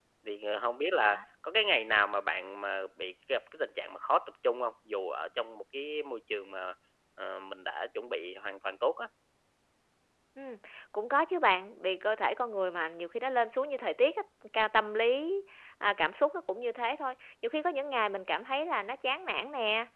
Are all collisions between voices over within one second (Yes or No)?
Yes